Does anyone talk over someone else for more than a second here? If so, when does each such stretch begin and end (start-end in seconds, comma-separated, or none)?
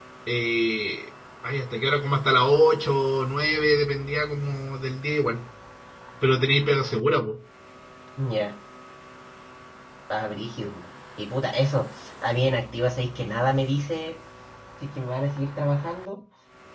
none